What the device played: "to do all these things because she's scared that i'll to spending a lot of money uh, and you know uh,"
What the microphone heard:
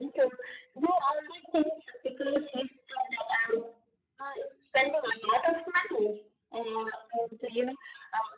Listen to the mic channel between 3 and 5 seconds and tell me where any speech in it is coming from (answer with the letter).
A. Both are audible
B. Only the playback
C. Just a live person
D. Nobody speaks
B